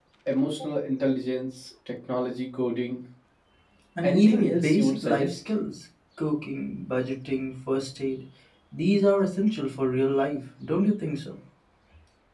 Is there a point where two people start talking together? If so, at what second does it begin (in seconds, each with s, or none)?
4.0 s